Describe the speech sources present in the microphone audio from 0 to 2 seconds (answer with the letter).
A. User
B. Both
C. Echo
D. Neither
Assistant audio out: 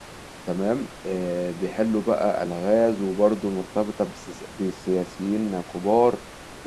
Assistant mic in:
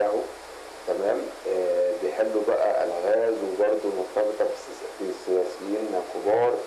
C